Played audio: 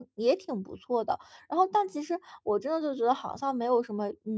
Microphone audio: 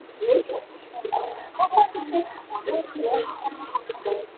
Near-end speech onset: none

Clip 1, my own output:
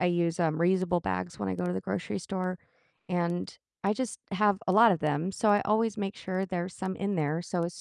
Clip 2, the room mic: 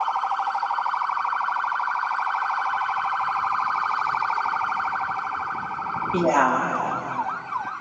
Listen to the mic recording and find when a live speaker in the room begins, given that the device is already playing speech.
6.1 s

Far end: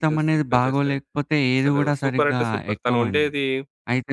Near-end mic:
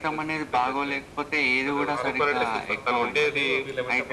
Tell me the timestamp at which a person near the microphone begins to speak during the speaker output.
1.9 s

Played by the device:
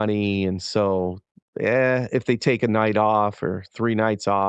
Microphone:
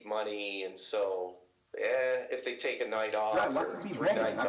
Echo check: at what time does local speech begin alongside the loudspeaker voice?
3.3 s

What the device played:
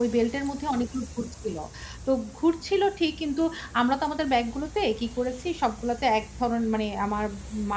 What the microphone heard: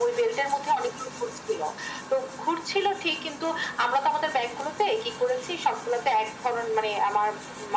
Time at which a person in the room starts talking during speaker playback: none

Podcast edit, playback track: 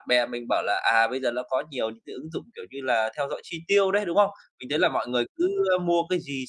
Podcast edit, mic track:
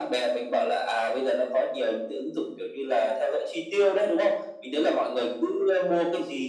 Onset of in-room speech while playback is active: none

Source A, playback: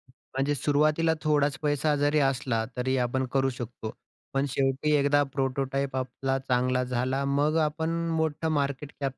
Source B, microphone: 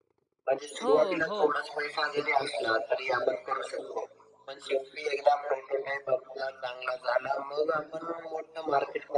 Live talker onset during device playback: 0.8 s

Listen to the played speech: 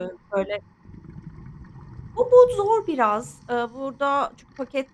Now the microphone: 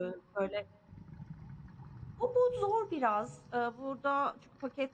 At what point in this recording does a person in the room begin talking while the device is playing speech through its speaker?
none

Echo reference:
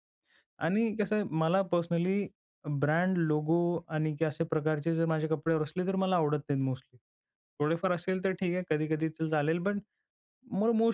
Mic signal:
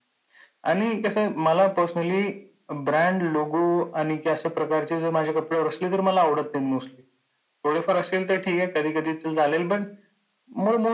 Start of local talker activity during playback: none

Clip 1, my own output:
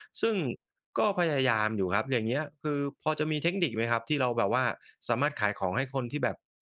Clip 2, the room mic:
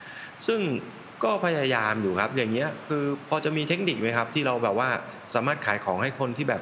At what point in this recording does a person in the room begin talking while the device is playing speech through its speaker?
none

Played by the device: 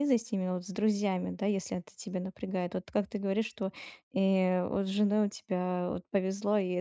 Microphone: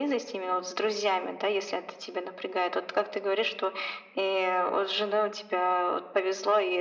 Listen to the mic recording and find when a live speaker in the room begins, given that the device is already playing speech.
none

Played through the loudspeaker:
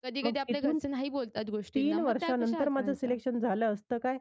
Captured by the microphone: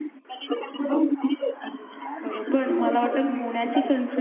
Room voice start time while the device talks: 2.2 s

